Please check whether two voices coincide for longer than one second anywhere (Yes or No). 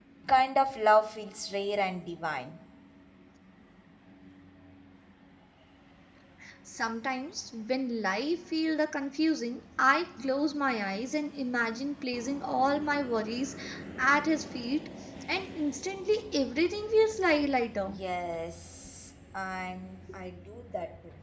No